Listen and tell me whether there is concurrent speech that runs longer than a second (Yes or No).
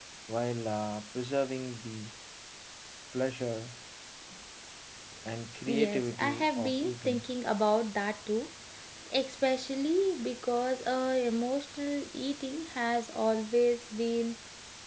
Yes